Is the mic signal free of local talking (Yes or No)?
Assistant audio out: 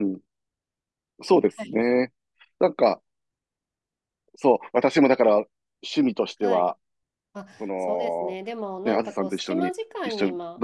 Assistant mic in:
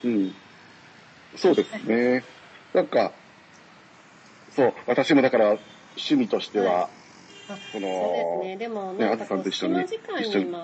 Yes